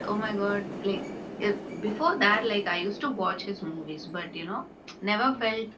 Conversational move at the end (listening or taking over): listening